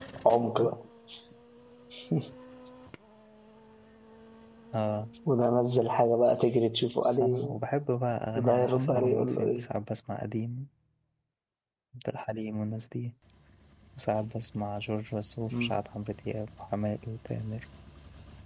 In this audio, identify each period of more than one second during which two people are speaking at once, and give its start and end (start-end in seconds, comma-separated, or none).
8.3-9.7